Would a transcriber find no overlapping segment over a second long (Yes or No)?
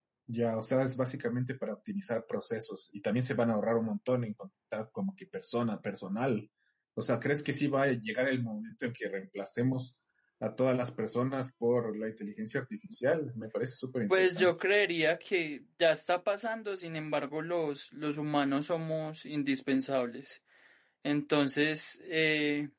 Yes